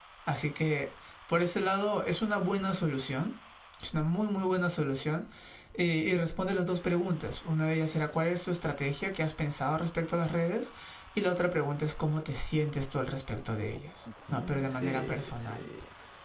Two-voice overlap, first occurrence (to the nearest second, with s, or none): 14 s